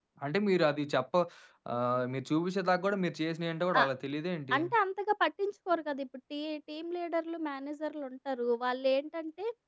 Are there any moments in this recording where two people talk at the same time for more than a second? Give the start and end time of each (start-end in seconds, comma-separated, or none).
none